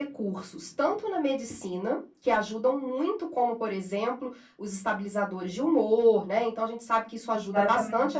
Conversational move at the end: listening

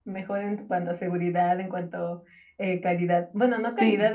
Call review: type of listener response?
listening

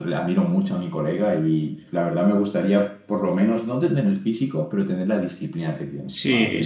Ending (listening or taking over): taking over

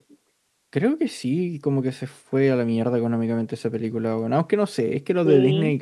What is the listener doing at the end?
listening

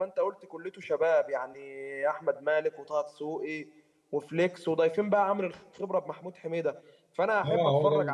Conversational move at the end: taking over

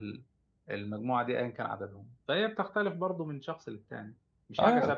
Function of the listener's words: taking over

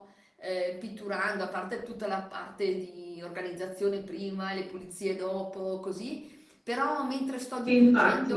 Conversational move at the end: listening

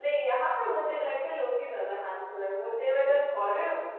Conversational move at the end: listening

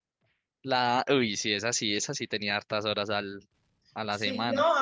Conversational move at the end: taking over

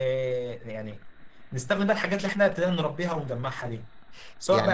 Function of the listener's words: taking over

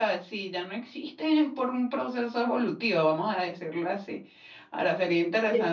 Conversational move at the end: taking over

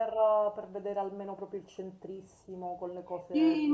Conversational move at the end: taking over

